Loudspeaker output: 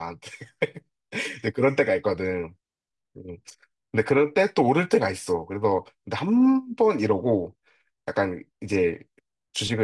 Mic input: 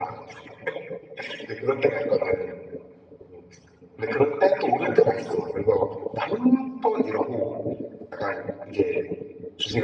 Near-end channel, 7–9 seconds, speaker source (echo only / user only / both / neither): echo only